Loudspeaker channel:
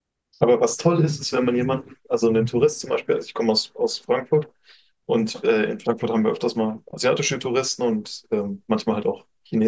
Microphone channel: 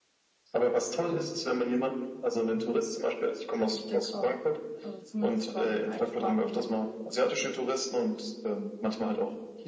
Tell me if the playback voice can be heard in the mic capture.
Yes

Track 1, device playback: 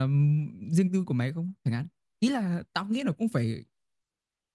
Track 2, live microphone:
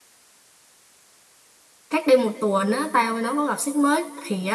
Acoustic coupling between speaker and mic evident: No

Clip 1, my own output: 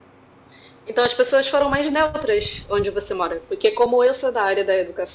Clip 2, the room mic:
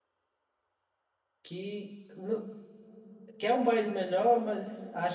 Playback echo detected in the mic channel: No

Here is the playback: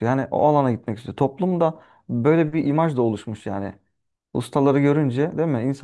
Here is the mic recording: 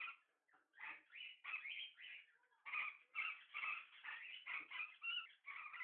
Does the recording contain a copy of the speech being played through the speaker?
No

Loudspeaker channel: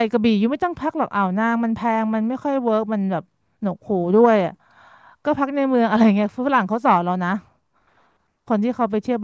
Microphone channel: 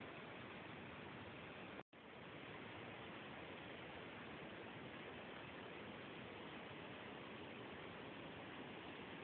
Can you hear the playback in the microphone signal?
No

